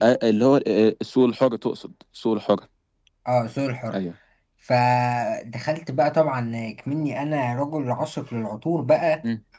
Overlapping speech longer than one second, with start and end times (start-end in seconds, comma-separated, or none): none